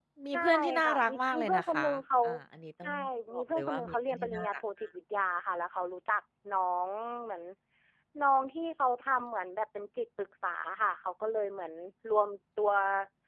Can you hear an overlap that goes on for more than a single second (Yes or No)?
Yes